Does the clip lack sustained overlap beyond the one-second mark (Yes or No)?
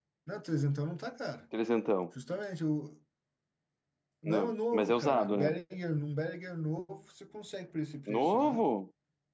No